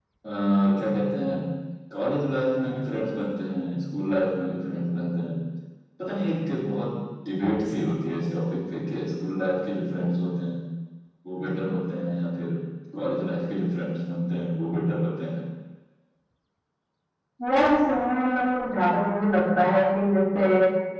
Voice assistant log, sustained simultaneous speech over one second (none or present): none